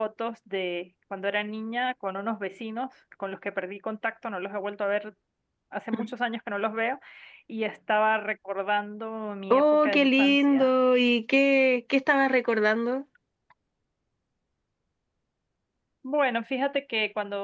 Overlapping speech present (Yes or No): Yes